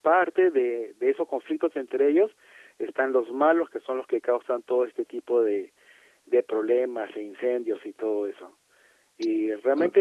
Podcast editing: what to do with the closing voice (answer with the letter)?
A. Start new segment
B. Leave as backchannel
B